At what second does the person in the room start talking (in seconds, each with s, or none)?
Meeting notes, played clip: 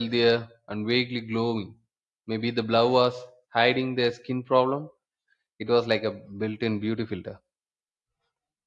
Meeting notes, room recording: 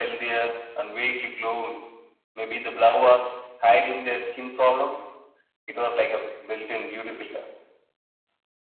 none